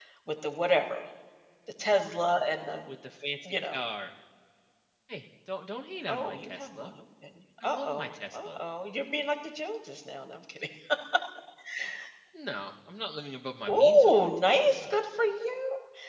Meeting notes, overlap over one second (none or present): present